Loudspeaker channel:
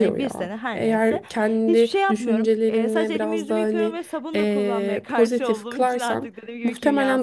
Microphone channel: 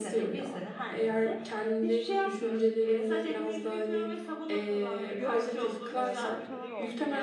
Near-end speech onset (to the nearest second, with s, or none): 5 s